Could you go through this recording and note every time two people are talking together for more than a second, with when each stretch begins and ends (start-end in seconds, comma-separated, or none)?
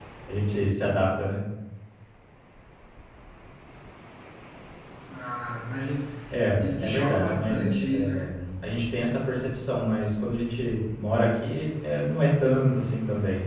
6.5-8.3